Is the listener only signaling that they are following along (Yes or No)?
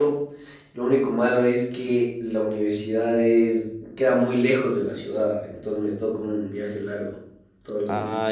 No